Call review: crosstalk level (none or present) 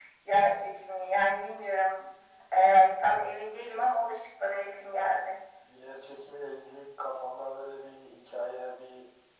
none